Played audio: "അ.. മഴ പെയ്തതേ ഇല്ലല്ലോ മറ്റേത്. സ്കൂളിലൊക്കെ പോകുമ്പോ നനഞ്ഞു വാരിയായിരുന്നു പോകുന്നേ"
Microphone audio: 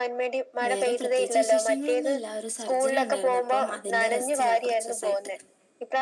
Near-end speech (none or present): present